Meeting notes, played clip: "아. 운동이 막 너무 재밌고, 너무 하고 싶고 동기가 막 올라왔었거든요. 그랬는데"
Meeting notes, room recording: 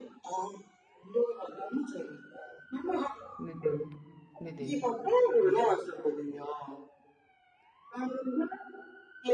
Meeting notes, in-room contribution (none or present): present